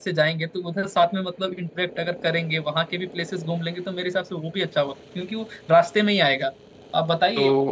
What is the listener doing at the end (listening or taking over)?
listening